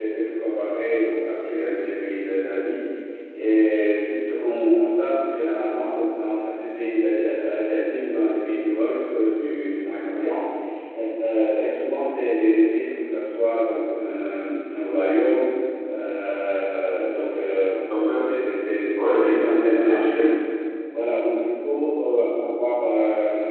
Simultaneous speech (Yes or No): Yes